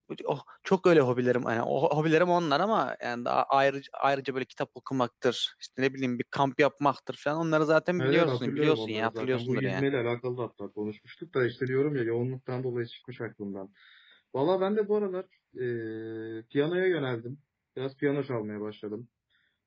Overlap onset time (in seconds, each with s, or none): 8.0 s